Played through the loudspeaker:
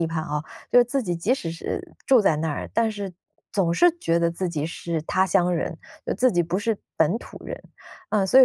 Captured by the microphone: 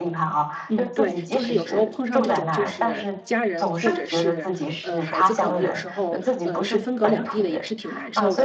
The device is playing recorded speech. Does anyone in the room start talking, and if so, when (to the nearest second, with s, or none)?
1 s